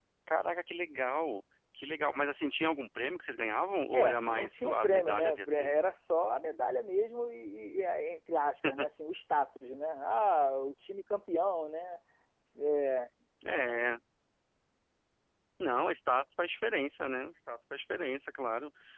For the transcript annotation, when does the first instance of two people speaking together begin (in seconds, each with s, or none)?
3.9 s